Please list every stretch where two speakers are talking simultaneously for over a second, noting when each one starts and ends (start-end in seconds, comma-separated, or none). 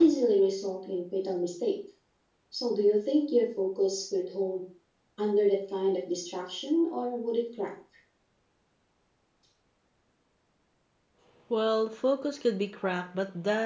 none